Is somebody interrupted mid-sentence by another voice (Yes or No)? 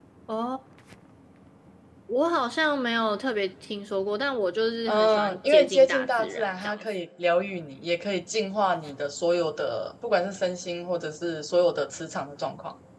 Yes